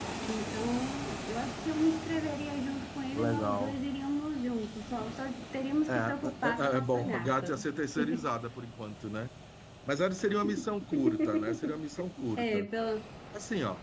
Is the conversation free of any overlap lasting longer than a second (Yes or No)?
No